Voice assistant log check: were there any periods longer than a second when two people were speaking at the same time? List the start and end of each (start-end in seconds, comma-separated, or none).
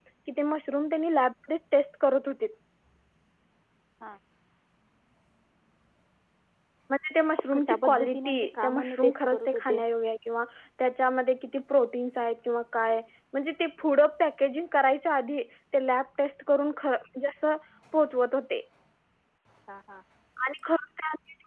7.5-9.8